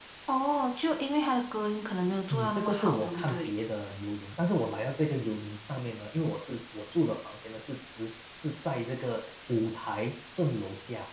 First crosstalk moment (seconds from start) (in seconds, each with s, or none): 2.3 s